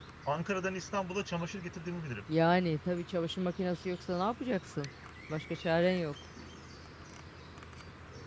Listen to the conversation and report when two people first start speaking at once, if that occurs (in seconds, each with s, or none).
none